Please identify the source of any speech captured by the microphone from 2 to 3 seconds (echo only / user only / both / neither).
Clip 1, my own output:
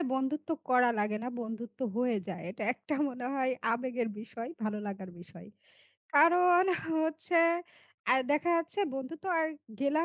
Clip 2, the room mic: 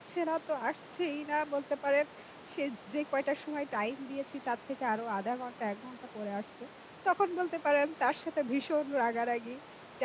user only